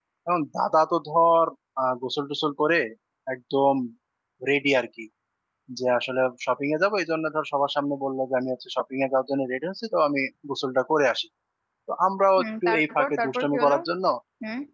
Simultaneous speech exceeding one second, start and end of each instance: 12.4-13.8

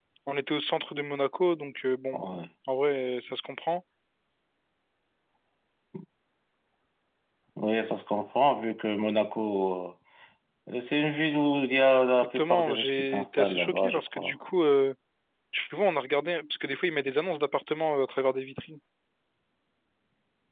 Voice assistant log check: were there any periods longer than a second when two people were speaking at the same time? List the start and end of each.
12.3-14.3

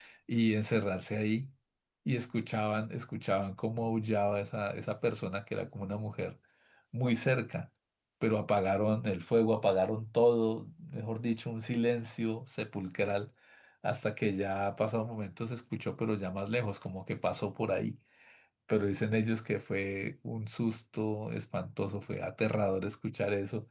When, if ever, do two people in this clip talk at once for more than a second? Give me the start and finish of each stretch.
none

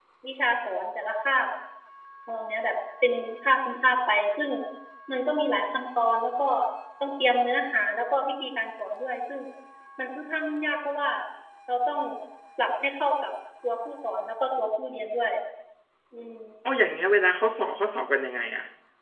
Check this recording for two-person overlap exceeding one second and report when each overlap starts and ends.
none

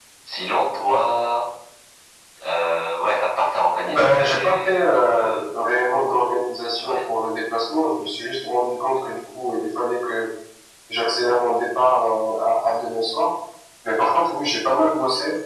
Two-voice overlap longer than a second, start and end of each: 3.8-5.4

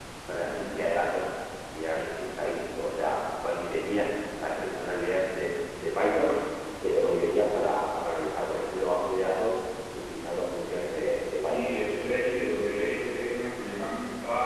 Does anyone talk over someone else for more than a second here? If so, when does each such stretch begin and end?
none

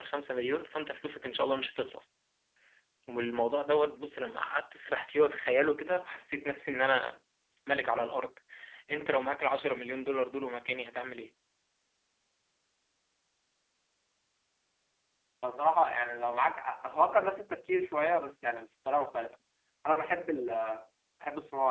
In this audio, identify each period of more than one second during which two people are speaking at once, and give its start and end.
none

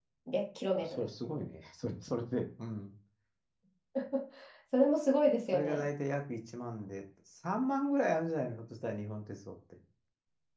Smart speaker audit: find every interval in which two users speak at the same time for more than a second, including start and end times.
none

